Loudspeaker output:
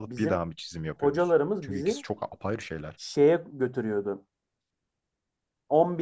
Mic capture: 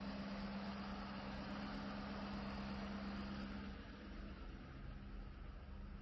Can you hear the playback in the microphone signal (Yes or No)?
No